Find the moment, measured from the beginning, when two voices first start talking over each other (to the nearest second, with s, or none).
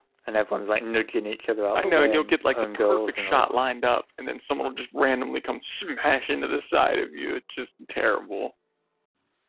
2 s